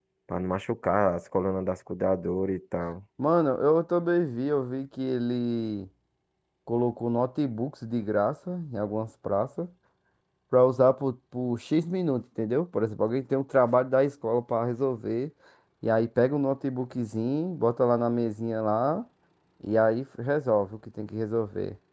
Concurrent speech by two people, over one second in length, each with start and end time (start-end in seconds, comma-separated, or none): none